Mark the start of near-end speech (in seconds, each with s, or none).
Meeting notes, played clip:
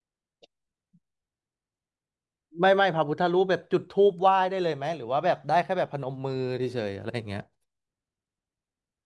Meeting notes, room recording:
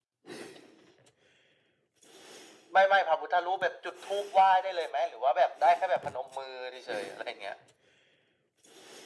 none